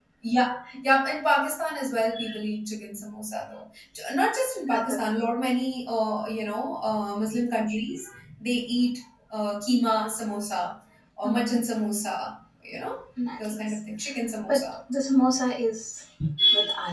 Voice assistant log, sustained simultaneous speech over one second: none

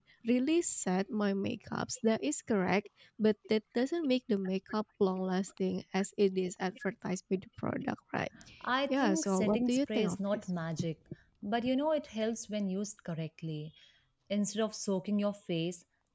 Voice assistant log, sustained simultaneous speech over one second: present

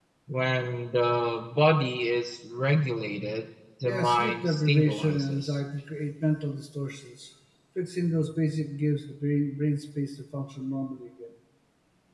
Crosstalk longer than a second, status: present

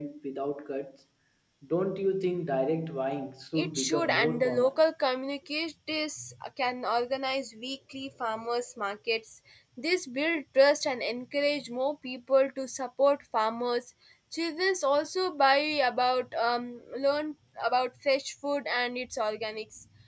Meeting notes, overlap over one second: present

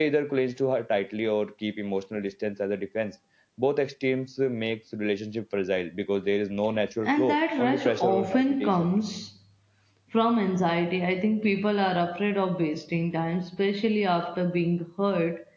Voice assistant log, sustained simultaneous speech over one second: present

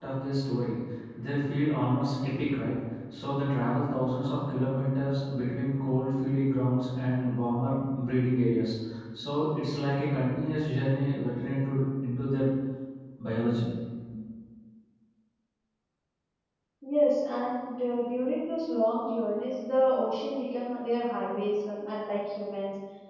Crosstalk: none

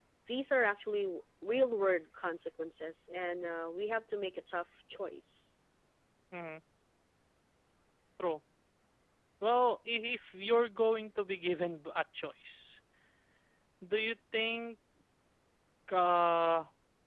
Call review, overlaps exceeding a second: none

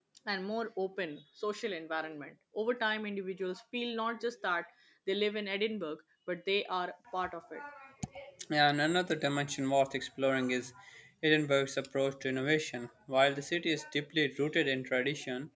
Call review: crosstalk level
none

